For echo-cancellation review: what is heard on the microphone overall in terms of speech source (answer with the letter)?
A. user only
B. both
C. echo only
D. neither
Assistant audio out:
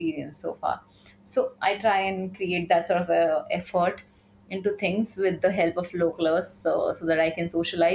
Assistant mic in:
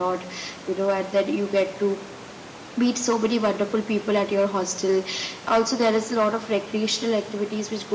A